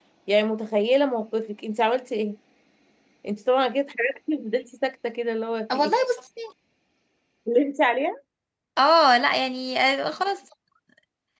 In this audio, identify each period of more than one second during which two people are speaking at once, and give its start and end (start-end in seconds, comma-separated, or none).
none